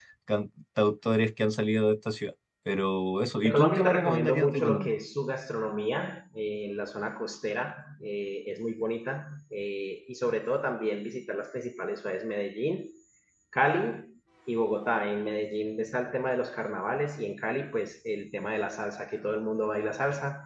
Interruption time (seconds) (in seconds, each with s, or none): 3.4 s